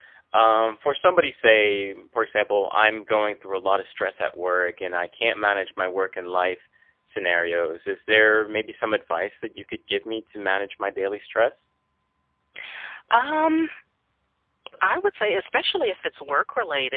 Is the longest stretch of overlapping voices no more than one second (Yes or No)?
Yes